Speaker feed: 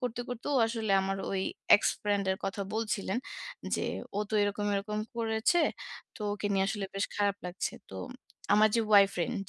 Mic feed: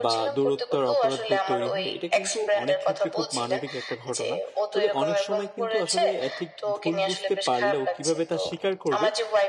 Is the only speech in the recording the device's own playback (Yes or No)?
No